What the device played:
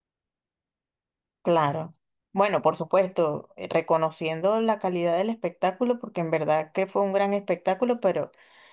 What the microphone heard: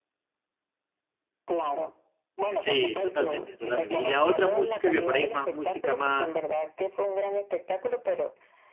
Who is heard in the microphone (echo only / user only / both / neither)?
both